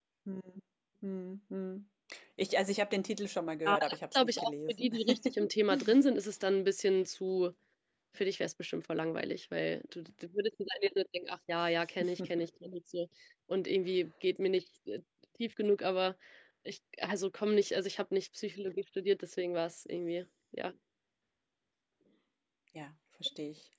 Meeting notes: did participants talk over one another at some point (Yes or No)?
Yes